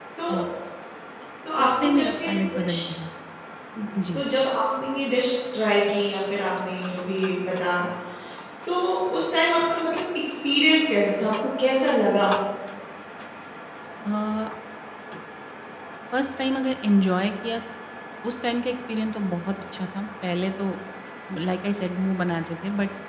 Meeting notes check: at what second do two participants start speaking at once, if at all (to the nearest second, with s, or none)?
2 s